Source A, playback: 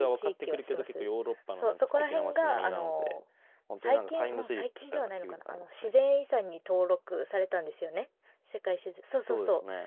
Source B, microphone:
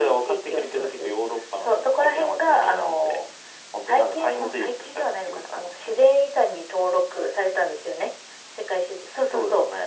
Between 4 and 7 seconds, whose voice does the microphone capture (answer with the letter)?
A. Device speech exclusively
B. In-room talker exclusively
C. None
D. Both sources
A